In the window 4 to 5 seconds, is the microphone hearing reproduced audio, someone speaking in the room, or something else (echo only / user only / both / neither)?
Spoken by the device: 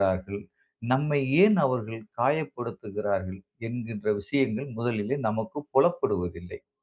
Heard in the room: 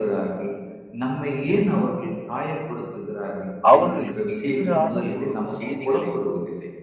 both